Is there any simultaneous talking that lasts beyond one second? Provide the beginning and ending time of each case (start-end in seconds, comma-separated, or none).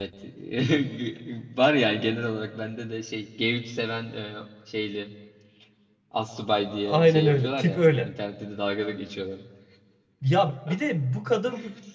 6.9-8.1